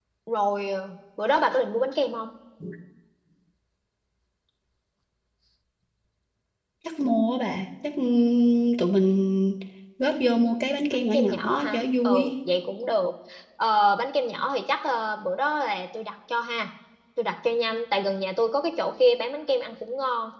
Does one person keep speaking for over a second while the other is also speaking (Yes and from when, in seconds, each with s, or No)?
Yes, from 10.9 s